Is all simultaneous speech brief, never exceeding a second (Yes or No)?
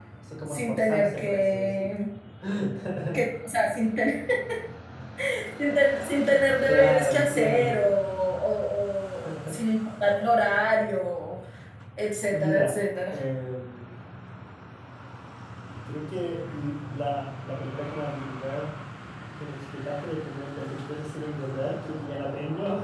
No